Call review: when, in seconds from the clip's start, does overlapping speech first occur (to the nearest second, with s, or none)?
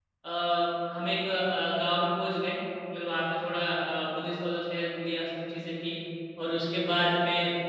none